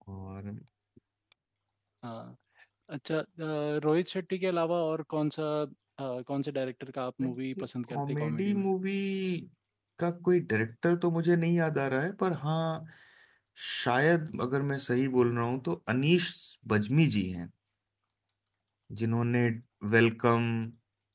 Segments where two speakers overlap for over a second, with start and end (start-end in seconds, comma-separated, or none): 7.2-8.6